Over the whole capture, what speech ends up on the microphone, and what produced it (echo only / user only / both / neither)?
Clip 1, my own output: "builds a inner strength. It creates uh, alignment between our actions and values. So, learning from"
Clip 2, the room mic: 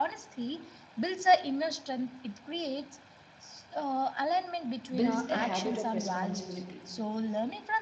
both